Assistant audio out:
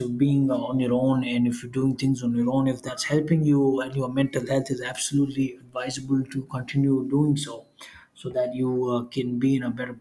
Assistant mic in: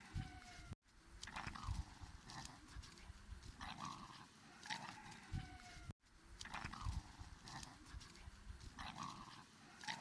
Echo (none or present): none